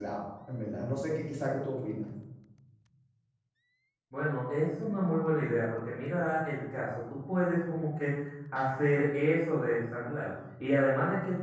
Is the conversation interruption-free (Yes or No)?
Yes